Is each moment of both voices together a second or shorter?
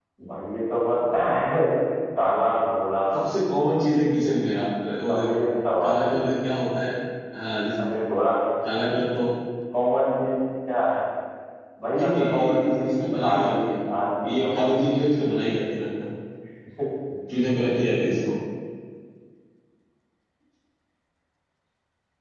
No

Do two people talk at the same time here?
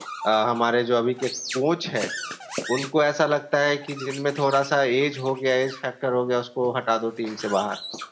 No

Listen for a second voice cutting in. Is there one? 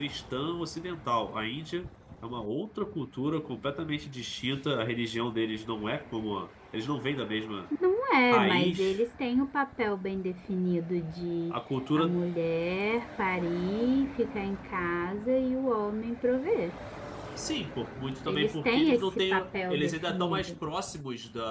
Yes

